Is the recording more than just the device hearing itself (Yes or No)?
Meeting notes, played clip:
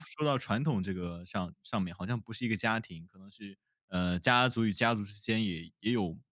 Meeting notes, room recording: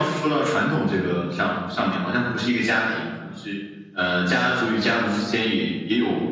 No